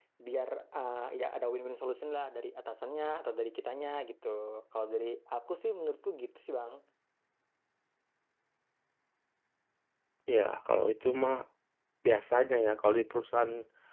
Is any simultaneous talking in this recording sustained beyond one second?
No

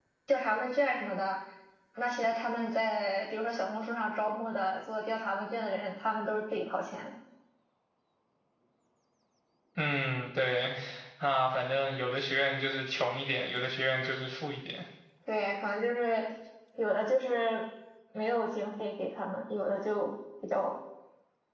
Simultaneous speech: No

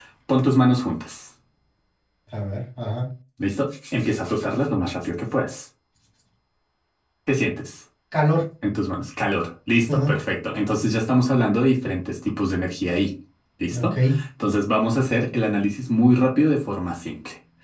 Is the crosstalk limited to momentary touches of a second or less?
Yes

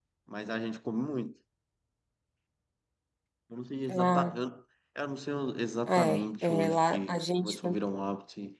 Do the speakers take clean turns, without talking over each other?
No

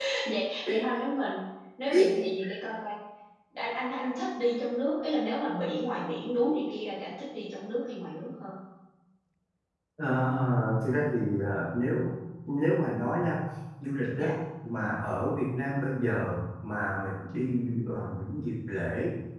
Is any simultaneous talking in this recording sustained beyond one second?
No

